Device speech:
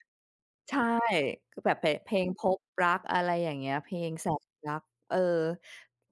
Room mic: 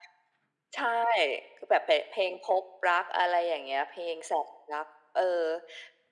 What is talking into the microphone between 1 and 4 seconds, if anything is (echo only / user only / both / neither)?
echo only